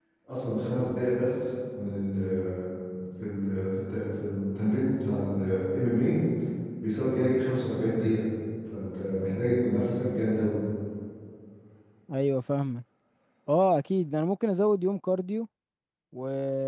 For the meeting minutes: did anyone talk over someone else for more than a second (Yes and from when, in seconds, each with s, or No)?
No